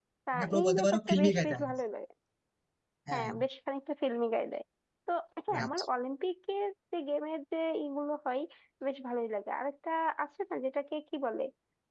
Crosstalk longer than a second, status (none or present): present